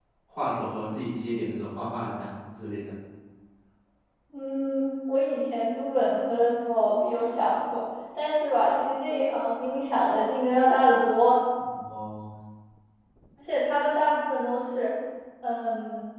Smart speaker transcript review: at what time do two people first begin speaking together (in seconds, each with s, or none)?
none